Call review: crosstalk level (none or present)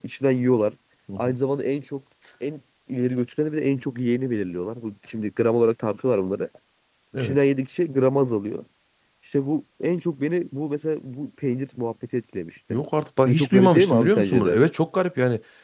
present